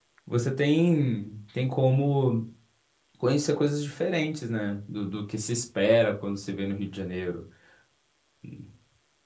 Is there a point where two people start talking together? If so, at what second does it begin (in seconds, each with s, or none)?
none